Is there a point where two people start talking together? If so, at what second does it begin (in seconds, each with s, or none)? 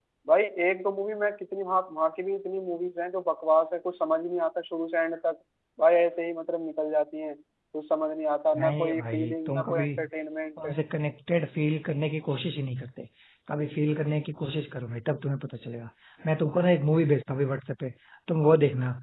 8.6 s